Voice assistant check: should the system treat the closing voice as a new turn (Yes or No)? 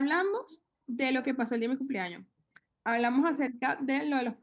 No